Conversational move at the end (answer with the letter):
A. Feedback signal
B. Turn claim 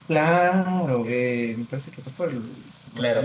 B